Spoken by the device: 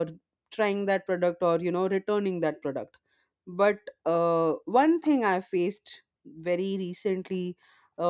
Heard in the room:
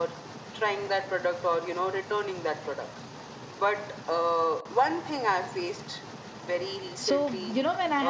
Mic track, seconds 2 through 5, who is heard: echo only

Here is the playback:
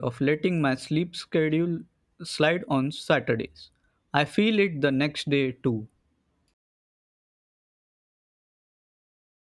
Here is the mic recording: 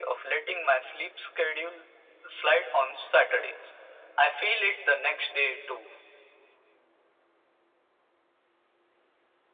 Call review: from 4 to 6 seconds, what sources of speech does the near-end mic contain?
echo only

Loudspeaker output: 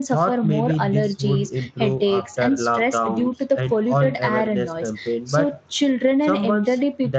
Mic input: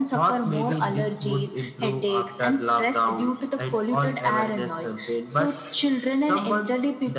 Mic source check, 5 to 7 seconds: echo only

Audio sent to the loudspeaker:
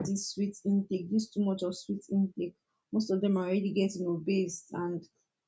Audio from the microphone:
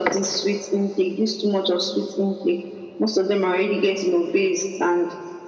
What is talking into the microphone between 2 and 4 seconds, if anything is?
echo only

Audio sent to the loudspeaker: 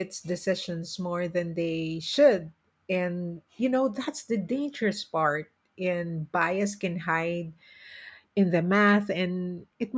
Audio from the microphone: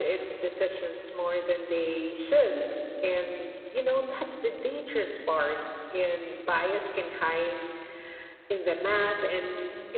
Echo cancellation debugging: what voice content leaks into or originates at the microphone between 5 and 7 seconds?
echo only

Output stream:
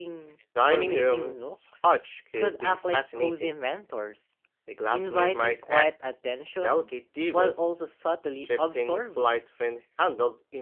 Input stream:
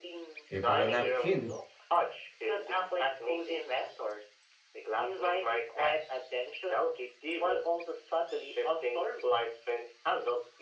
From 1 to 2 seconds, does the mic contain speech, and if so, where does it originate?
both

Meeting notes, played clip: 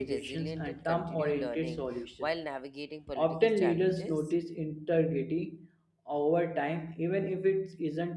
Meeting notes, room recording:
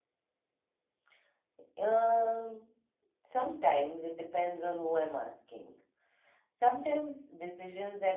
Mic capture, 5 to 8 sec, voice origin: user only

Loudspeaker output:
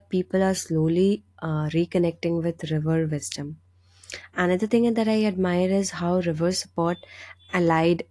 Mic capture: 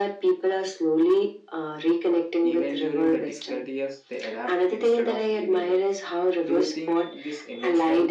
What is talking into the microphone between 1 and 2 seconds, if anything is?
echo only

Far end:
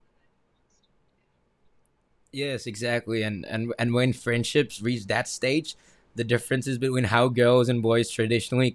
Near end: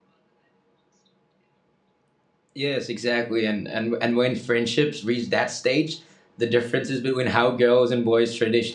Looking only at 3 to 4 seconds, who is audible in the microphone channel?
echo only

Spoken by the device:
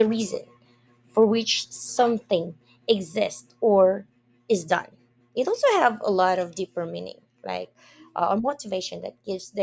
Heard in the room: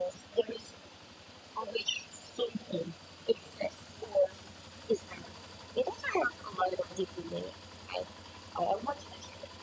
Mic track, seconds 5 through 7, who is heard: echo only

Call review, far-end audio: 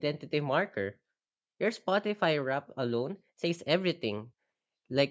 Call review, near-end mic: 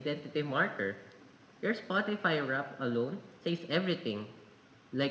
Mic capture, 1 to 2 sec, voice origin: echo only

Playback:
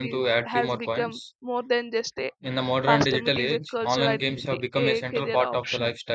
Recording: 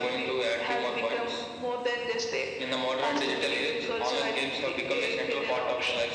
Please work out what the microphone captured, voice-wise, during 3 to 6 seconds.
echo only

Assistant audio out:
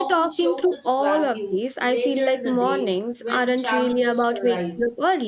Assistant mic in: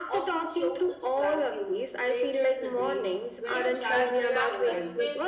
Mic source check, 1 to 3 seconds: echo only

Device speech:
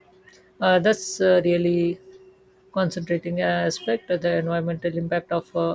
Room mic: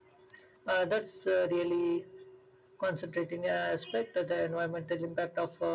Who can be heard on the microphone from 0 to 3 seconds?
echo only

